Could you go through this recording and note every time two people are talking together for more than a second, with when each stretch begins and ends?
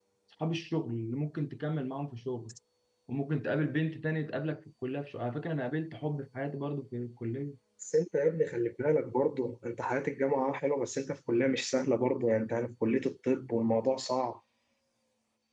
none

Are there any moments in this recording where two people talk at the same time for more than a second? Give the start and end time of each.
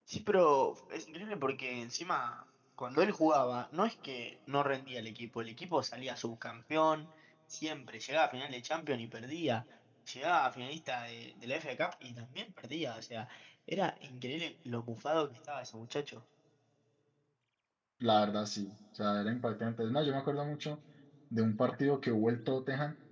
none

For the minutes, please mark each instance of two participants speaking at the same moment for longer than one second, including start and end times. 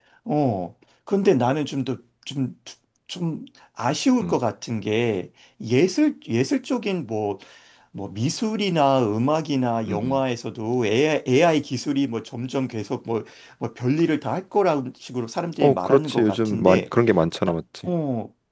15.6-16.8

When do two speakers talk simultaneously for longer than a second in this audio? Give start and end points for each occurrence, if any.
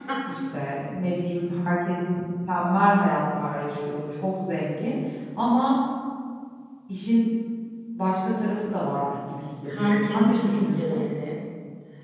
9.7-11.0

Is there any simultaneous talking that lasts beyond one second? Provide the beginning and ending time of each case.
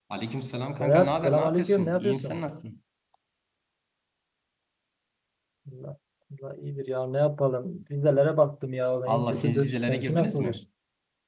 0.8-2.4, 9.1-10.6

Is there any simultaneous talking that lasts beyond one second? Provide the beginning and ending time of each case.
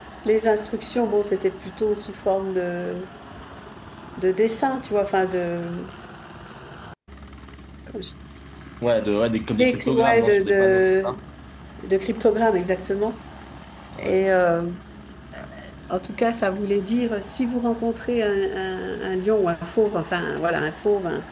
9.6-11.1

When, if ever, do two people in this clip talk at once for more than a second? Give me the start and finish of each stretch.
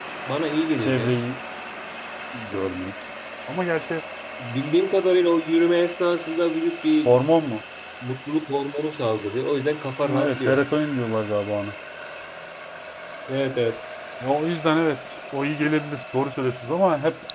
none

